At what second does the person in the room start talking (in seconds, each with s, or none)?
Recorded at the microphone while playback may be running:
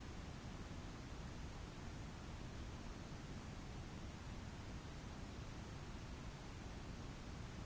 none